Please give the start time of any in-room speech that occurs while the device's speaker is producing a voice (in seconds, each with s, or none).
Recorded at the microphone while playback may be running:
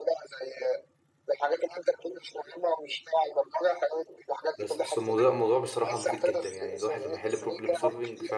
4.6 s